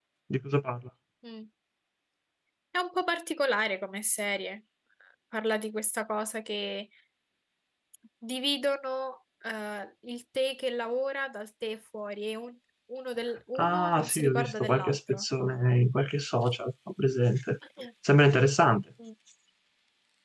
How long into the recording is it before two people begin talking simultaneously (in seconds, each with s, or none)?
13.6 s